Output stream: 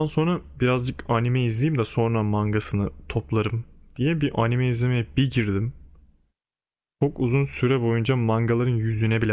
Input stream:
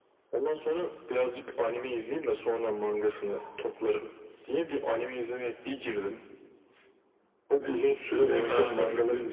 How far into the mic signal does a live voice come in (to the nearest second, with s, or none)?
8 s